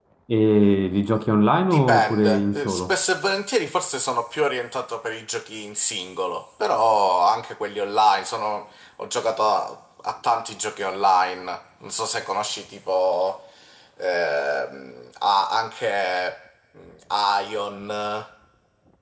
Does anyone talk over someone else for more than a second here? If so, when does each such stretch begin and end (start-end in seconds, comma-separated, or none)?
1.7-2.9